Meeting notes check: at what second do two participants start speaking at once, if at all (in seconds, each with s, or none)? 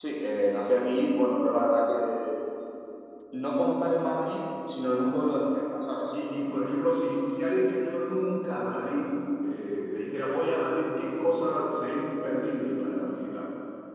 none